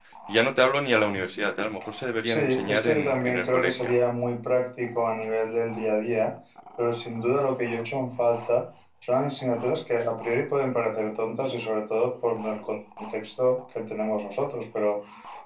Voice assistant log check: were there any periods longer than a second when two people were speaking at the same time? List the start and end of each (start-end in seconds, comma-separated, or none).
2.2-3.9